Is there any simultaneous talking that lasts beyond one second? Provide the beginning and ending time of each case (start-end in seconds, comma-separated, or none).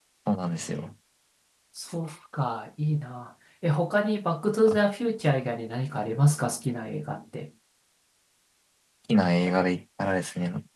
none